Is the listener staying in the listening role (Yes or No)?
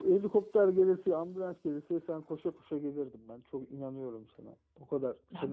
No